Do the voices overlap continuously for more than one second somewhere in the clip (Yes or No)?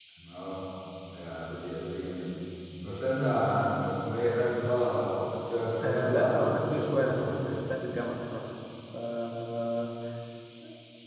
Yes